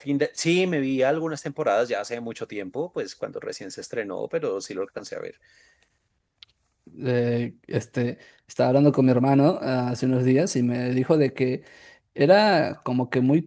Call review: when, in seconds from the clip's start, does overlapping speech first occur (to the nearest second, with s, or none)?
none